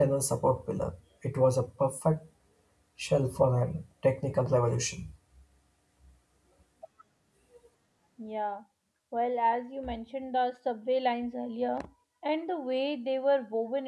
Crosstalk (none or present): none